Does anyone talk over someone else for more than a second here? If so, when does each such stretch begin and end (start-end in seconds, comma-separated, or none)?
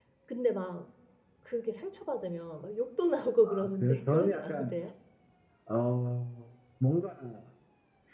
3.4-4.8